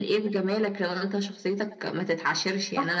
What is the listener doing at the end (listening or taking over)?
taking over